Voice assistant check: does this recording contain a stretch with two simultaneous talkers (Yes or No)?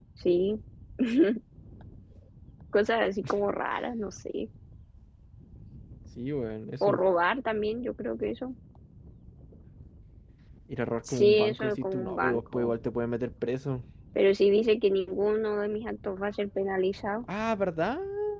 Yes